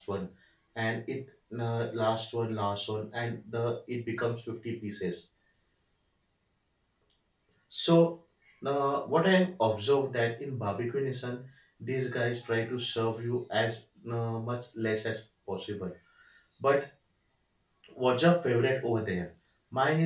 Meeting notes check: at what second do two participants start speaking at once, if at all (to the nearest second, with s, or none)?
none